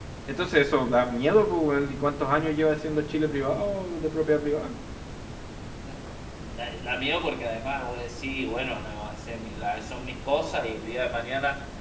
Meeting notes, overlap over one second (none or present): none